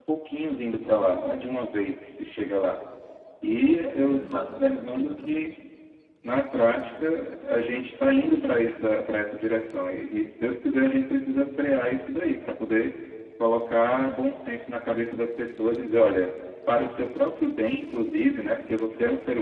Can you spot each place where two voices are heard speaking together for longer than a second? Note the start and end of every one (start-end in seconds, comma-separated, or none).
4.0-5.5